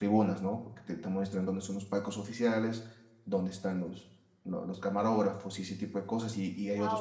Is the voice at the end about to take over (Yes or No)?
No